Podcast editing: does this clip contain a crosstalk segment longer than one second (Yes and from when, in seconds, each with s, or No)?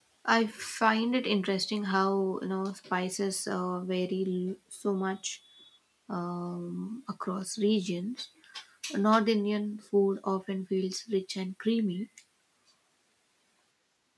No